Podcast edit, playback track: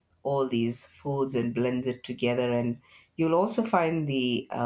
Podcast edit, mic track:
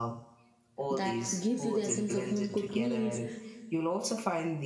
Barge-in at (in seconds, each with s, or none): 0.9 s